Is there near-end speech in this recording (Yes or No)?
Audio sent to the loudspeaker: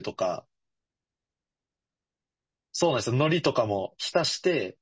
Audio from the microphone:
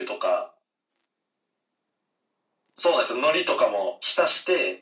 No